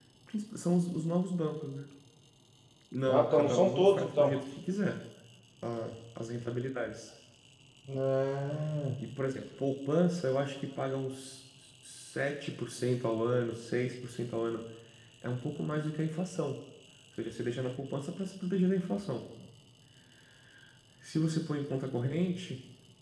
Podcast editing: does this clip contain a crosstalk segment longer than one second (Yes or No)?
Yes